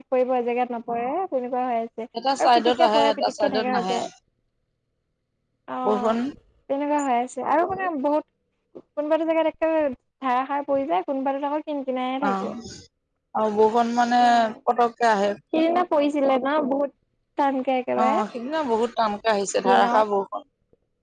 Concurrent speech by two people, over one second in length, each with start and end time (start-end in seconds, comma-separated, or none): 2.4-3.9